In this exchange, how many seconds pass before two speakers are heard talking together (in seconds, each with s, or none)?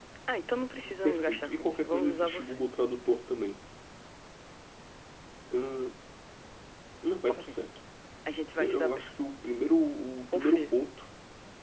1.0 s